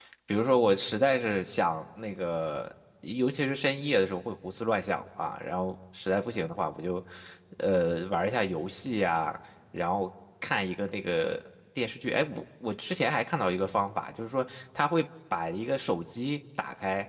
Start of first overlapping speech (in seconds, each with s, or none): none